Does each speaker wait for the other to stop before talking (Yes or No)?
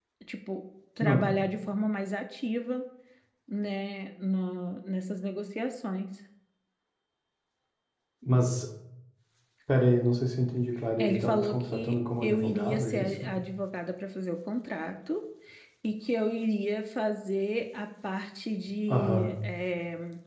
No